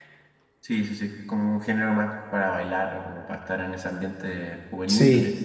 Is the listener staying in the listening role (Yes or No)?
Yes